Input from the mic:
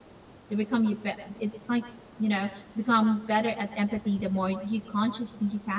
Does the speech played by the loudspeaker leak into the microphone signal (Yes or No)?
No